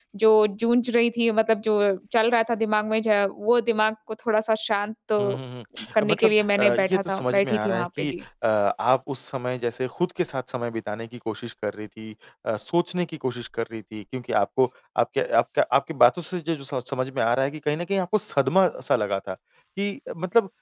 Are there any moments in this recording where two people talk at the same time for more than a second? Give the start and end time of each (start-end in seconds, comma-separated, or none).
6.1-8.1